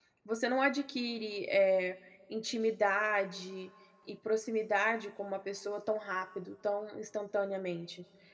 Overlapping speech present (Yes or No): No